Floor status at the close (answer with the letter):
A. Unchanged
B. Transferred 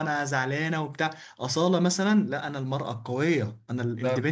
A